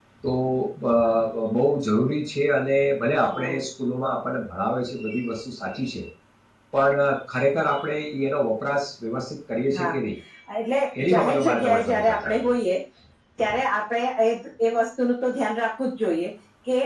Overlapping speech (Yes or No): Yes